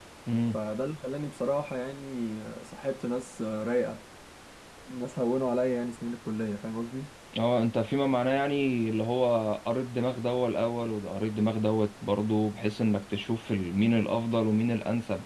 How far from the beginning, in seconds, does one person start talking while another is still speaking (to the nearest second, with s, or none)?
none